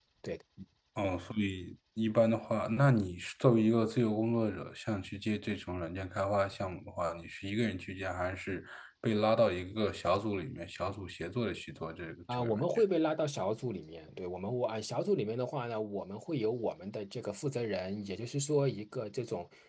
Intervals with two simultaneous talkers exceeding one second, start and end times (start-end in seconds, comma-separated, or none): none